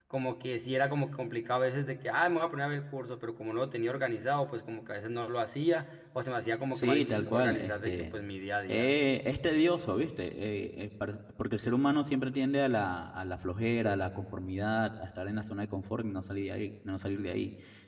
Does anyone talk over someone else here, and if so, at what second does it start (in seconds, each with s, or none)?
6.7 s